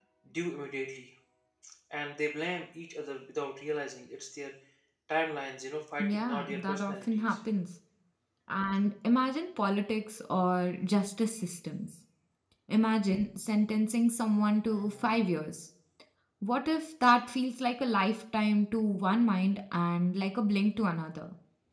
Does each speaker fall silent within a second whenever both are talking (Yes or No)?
No